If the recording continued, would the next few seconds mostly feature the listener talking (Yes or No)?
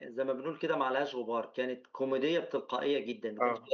No